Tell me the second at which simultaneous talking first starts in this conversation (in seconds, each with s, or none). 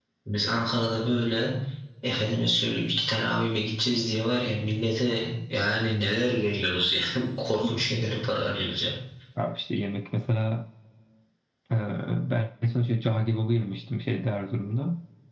none